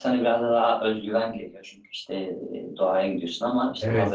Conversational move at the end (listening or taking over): taking over